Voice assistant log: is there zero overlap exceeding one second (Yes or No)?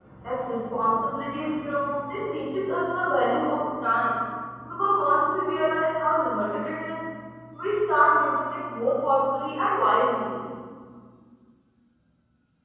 No